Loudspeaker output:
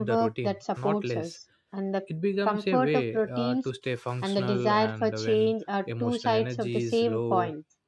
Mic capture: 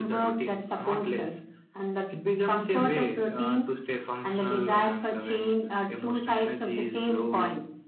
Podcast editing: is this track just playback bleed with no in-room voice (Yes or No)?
Yes